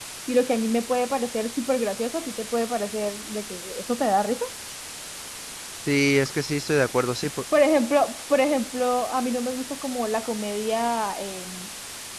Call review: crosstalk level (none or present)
none